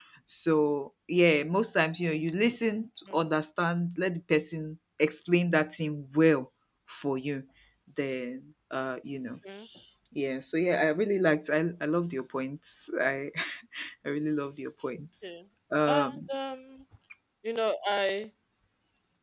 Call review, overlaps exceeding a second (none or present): none